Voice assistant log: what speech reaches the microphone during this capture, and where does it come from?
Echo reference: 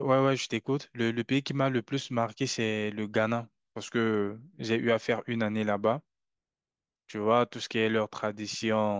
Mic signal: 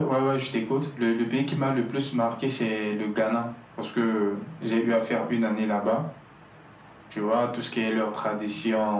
echo only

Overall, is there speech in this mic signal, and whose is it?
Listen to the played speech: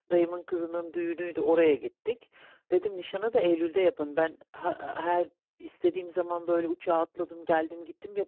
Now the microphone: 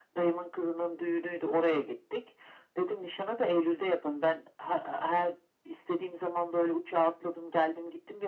echo only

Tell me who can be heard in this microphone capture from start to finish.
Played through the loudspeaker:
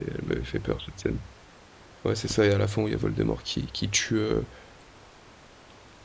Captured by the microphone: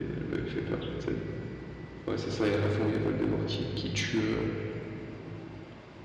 echo only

